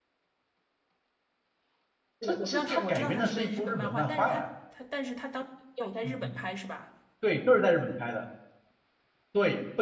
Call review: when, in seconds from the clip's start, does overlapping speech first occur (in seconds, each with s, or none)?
2.2 s